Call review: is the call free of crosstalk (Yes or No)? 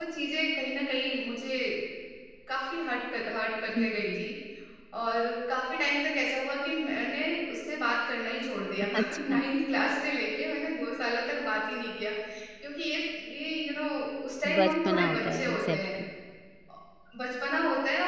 No